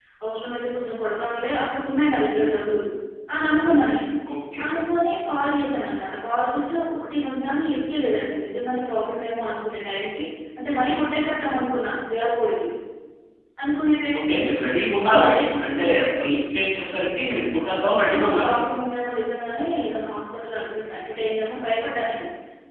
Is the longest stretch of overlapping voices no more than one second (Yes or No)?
Yes